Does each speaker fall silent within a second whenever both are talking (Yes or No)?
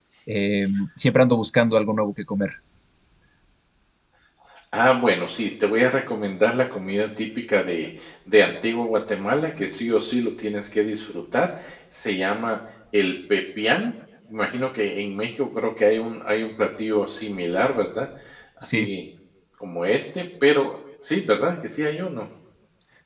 Yes